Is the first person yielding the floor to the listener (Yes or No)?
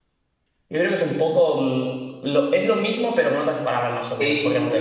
Yes